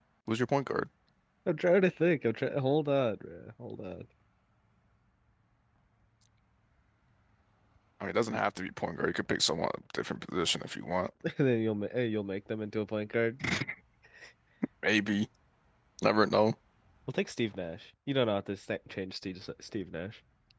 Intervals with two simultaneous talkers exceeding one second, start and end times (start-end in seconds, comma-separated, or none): none